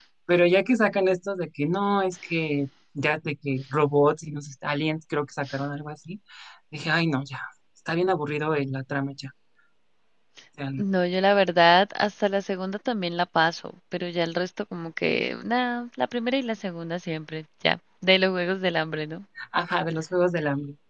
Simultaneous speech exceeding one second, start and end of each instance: none

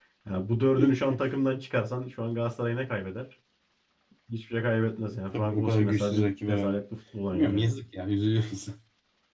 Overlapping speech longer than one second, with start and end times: 5.3-6.8

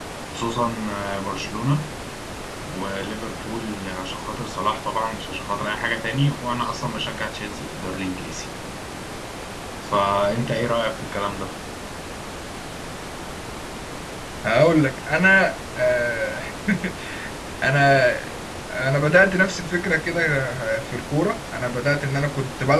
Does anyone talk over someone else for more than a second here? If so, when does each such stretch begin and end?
none

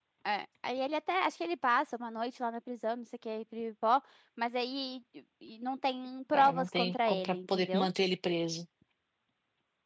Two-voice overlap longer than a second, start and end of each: 6.3-7.9

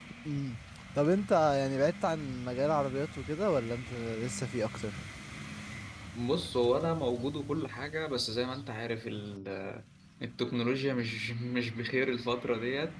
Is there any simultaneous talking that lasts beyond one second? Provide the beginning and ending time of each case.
none

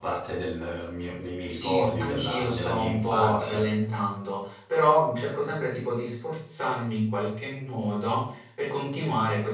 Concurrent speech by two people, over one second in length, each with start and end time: 1.5-3.6

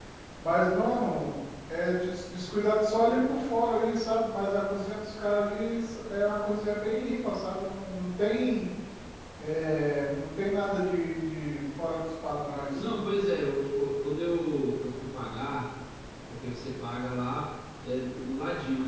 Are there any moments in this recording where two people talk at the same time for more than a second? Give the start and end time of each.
none

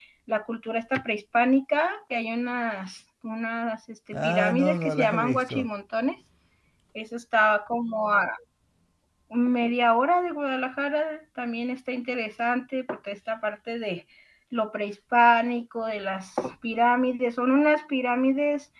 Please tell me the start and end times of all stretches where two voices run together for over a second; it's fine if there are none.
4.1-5.7

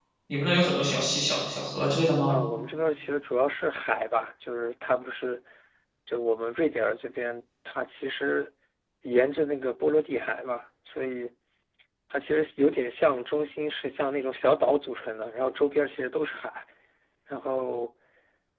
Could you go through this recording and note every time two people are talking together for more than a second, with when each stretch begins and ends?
none

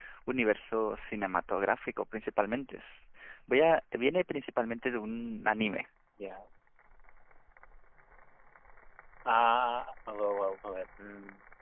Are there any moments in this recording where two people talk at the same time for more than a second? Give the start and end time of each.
none

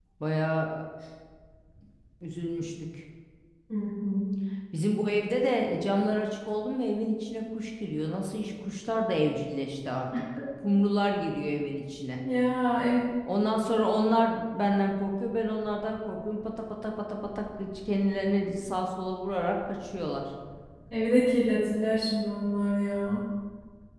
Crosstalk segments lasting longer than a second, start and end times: none

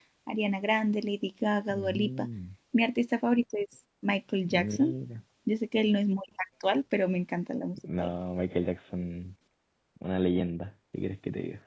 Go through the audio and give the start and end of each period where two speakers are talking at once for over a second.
none

